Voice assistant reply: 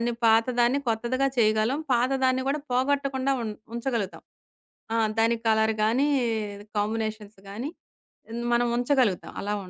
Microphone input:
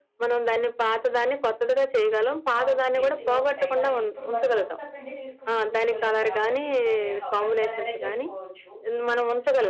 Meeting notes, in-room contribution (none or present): present